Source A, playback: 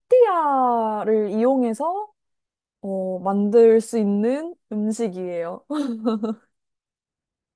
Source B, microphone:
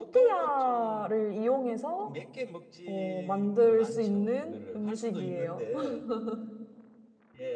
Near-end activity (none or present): present